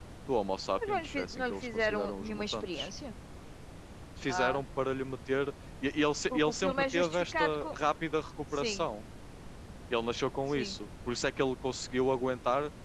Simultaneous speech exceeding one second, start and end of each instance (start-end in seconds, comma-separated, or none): 0.8-2.9, 6.3-7.8